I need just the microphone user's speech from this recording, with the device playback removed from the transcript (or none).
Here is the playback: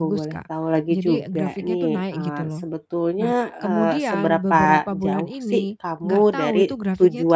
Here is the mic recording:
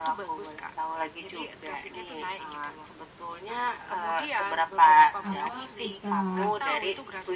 Apa, kita